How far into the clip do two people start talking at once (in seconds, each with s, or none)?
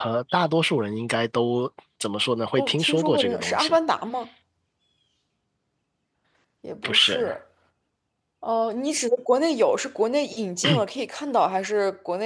2.6 s